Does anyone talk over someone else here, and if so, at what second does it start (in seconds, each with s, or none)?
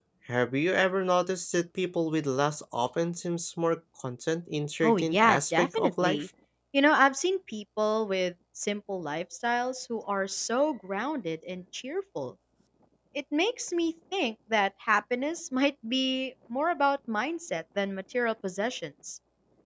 4.8 s